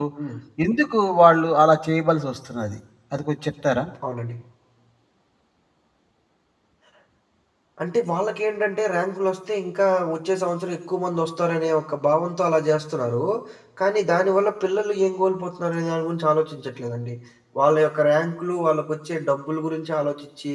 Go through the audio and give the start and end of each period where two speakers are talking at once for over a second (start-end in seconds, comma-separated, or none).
none